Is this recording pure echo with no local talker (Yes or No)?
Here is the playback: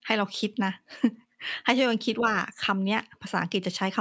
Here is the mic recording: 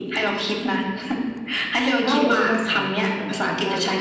No